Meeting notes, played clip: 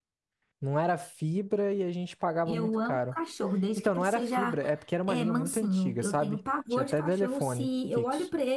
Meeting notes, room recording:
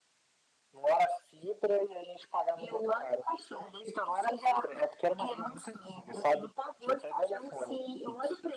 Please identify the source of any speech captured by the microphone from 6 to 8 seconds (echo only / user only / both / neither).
echo only